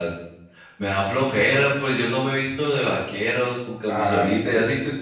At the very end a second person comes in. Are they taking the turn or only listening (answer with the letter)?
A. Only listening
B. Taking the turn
A